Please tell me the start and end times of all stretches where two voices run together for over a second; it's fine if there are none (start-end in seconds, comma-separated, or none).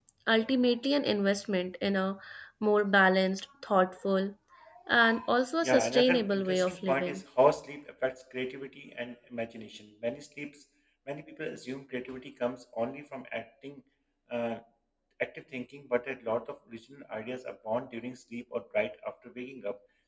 5.6-7.2